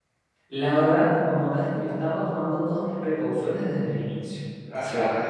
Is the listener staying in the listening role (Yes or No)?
No